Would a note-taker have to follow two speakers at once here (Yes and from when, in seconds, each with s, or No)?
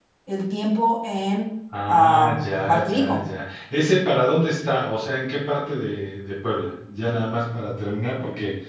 Yes, from 1.7 s